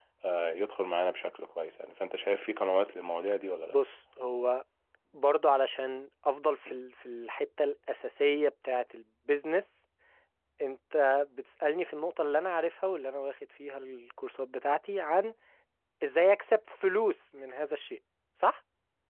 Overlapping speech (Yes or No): No